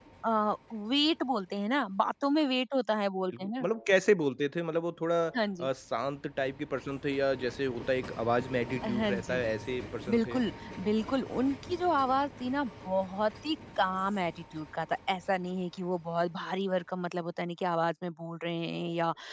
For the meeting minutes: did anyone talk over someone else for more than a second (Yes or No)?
No